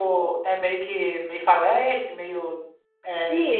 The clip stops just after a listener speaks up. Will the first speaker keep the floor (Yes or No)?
No